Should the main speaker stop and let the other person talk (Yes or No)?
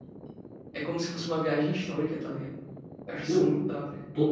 Yes